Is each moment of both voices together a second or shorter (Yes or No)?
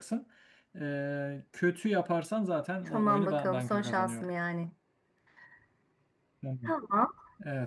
No